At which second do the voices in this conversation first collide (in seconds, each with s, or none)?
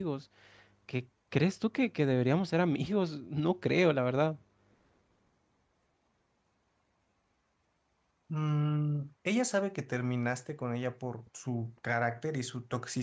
none